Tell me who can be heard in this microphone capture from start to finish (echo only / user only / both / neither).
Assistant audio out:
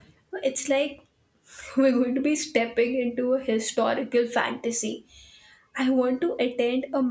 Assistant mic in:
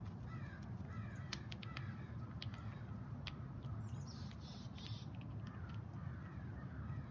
neither